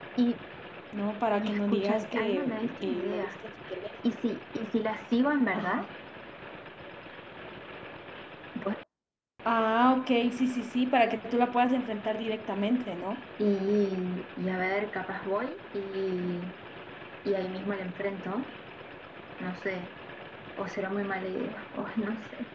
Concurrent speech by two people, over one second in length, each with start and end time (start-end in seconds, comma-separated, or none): 1.4-3.3